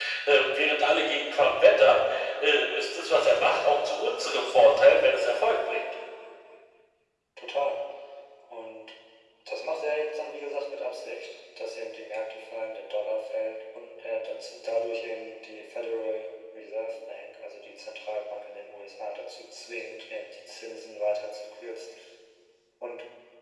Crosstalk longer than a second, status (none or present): none